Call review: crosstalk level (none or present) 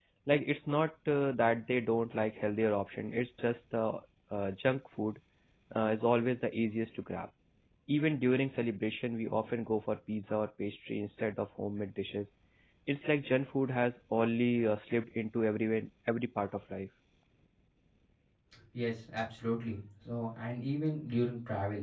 none